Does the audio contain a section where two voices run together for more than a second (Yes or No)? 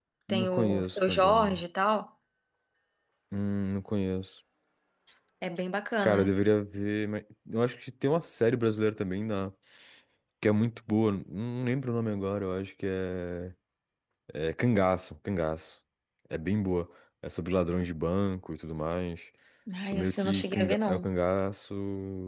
Yes